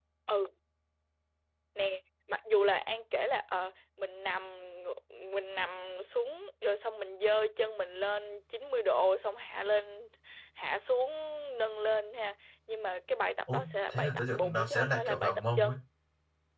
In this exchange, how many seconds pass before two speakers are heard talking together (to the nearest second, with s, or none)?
13 s